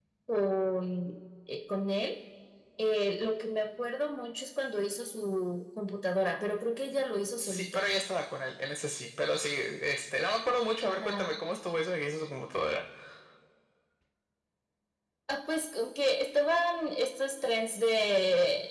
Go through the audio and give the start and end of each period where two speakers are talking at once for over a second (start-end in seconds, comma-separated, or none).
none